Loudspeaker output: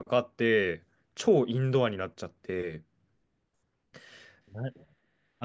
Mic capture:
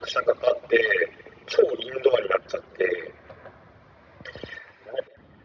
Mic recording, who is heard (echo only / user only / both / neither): echo only